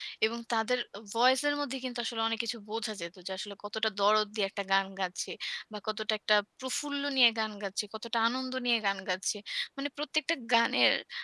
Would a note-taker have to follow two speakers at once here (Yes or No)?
No